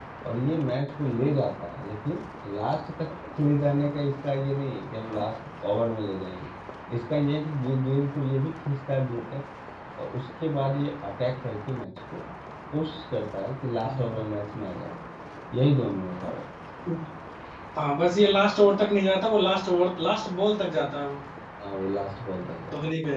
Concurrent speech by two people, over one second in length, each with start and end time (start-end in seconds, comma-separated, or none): none